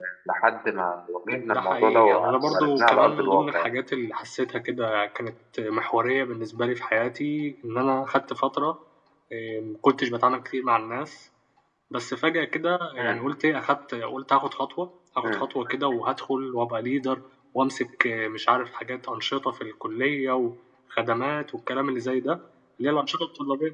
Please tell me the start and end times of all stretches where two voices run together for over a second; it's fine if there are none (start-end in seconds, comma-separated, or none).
1.5-3.7